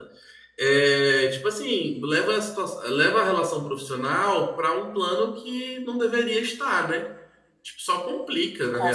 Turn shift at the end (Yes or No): Yes